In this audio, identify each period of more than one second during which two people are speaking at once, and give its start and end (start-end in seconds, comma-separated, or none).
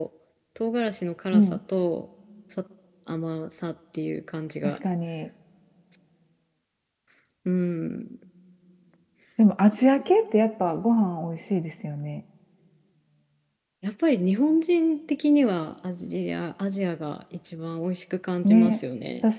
none